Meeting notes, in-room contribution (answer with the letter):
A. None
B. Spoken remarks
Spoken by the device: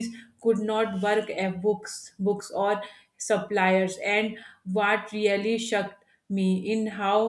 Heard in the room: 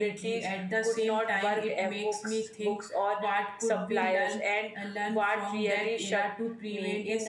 B